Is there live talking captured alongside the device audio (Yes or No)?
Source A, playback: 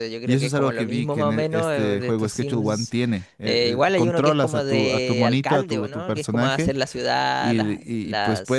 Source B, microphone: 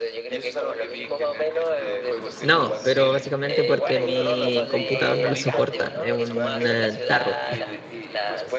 Yes